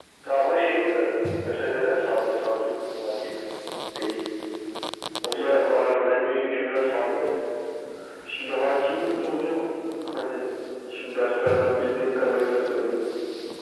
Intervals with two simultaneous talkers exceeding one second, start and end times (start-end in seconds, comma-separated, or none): none